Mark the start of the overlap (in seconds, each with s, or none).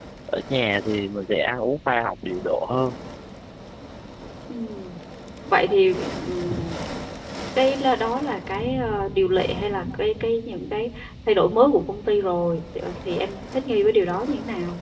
none